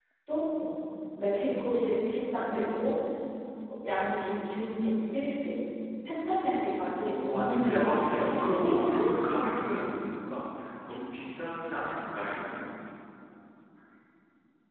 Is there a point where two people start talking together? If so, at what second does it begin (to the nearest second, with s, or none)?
7 s